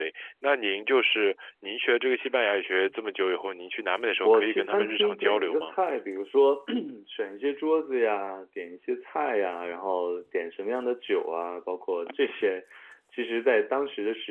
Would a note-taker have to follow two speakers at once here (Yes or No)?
Yes